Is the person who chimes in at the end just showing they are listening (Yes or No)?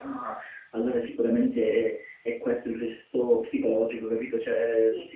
Yes